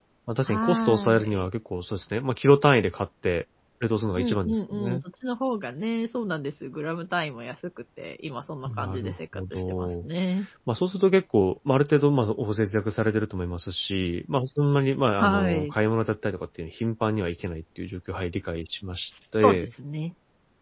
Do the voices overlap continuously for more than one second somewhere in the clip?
Yes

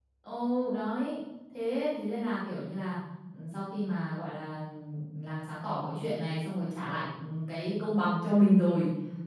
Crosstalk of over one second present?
No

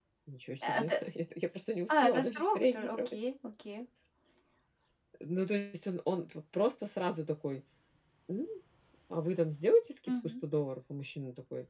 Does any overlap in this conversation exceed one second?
Yes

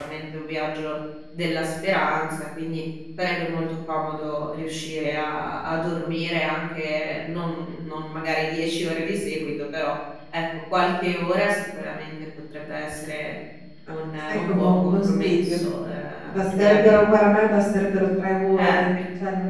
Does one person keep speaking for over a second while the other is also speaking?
Yes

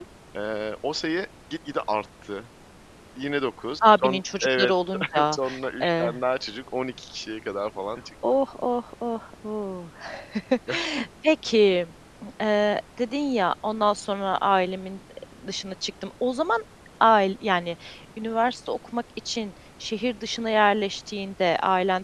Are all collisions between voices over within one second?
No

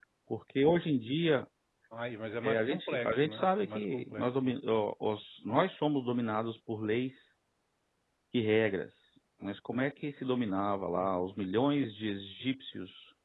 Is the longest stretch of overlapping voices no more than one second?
No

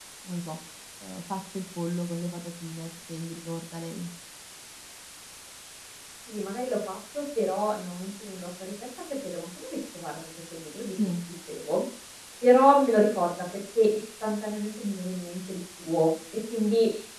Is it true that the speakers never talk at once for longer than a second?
Yes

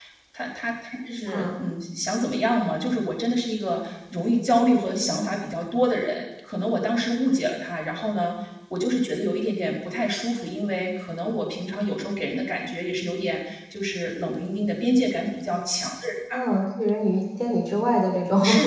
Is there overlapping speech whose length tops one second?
No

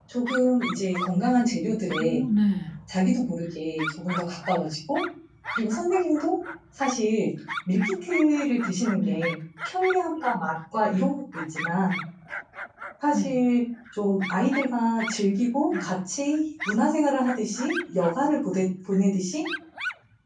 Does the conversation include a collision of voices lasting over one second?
No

